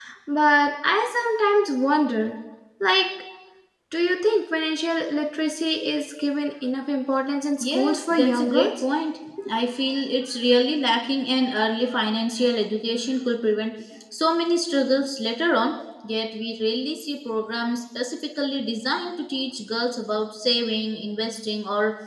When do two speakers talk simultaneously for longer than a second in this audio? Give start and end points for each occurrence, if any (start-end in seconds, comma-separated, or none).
7.6-8.8